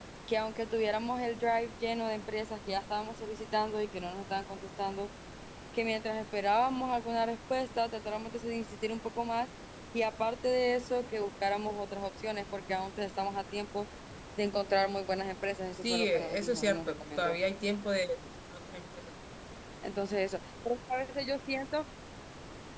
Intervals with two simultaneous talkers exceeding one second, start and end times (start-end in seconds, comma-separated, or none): 15.8-17.4